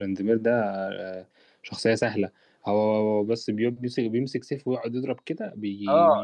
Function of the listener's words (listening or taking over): taking over